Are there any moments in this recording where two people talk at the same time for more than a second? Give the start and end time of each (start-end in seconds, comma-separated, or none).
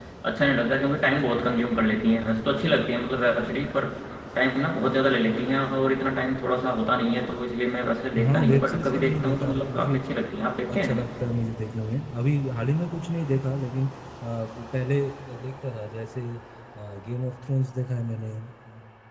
8.2-10.0